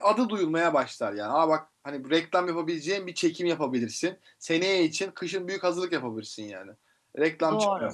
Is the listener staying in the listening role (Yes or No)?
Yes